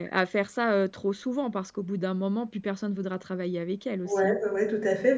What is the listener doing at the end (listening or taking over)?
taking over